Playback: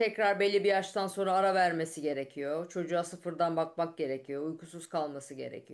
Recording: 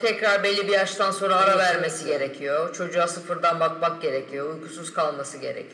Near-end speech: present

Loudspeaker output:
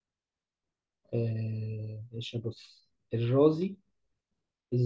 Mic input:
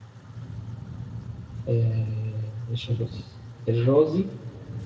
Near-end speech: none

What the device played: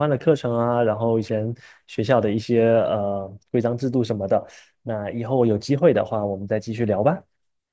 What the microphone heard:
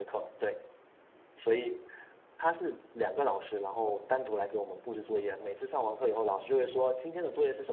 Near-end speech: present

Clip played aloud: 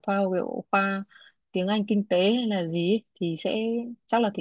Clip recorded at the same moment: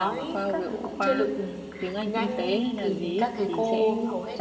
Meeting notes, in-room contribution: present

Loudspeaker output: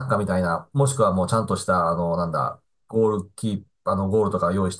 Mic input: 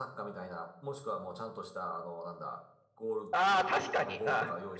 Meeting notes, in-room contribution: present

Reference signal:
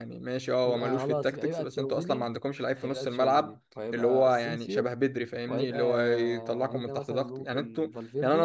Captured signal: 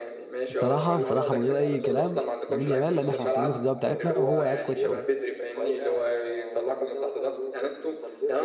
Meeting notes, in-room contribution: present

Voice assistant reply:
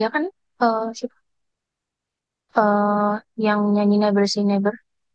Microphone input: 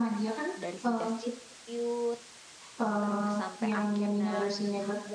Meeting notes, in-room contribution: present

